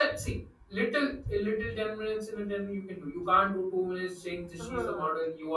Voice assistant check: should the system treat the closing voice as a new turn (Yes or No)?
No